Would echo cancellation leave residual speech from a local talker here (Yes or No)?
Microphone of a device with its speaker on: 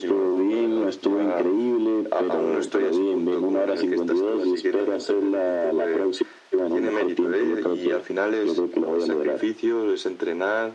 No